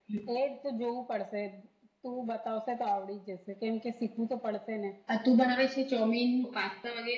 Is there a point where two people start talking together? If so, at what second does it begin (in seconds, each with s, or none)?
none